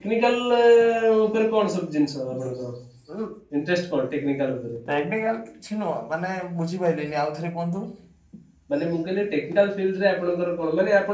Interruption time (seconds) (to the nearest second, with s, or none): none